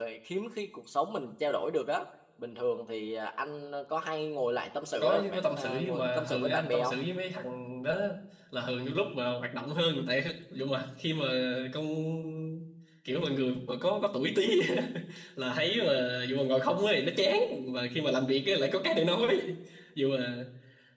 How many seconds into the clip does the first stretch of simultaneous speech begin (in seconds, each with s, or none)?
4.9 s